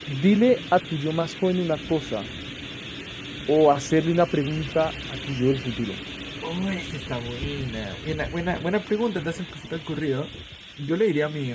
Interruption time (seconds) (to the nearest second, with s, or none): none